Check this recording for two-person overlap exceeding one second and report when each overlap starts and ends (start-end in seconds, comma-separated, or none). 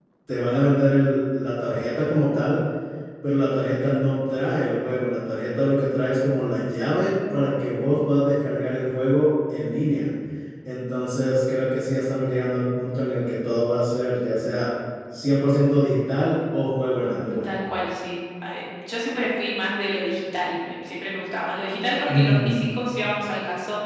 none